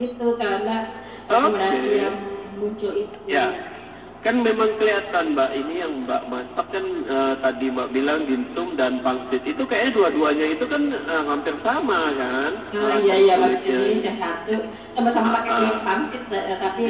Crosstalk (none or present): present